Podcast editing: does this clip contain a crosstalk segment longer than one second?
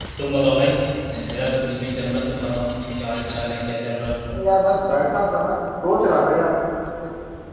No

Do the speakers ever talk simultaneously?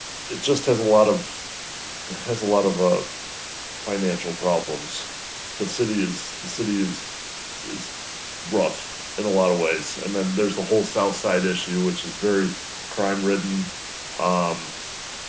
No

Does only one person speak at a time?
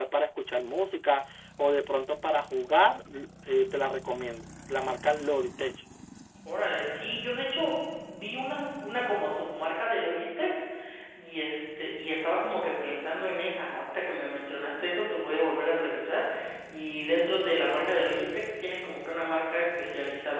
Yes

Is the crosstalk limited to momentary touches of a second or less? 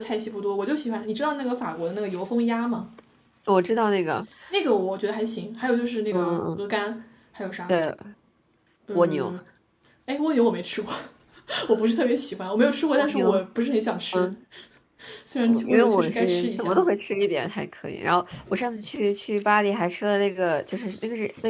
No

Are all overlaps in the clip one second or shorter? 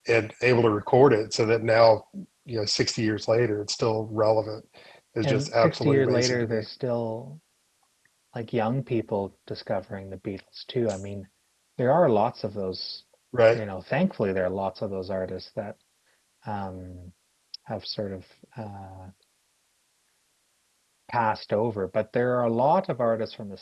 No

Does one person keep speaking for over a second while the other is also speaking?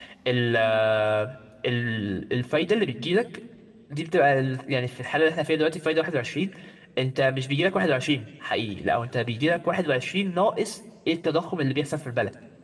No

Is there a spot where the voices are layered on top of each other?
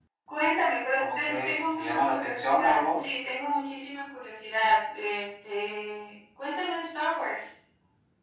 Yes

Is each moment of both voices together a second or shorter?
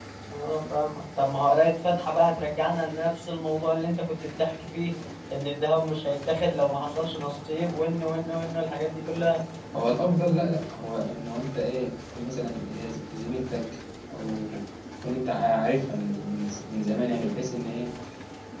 Yes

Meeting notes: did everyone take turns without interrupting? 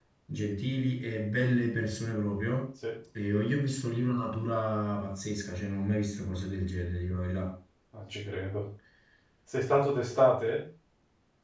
Yes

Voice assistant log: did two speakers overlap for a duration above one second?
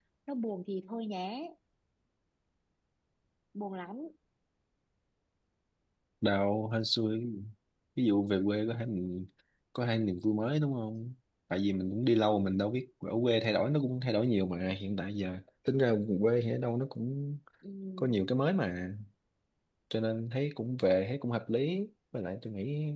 No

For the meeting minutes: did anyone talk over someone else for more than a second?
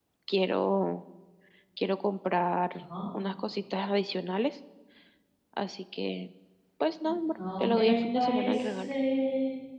Yes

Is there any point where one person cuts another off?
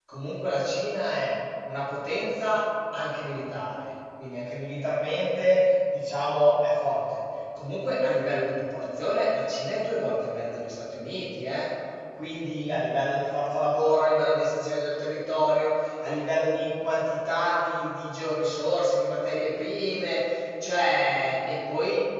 No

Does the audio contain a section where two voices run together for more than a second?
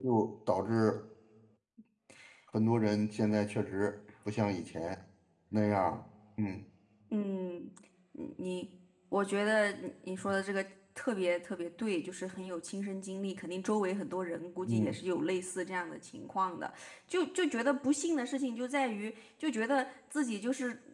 No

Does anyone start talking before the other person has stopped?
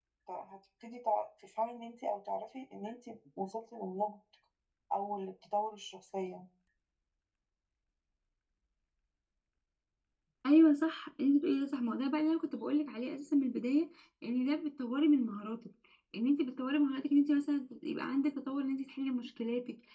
No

